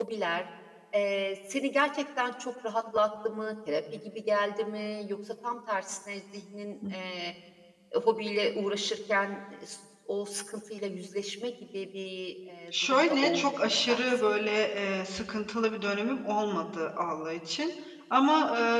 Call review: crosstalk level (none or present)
present